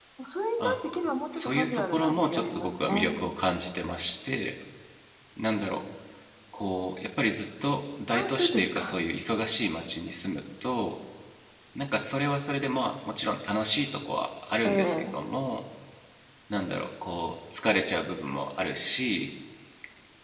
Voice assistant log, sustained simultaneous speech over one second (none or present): present